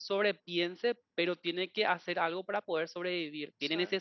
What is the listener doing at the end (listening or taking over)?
listening